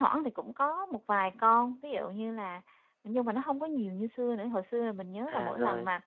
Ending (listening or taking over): listening